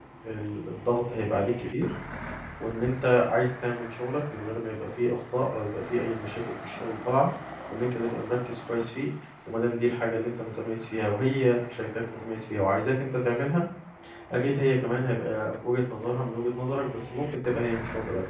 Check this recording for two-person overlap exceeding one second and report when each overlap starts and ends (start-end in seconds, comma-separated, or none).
none